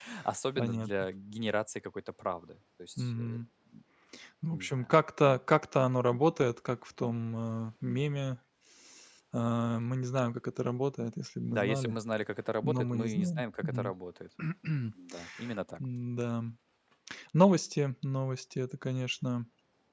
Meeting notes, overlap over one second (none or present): present